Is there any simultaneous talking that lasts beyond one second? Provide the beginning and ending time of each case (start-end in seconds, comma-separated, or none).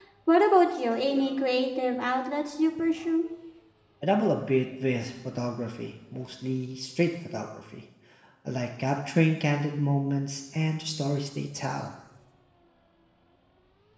none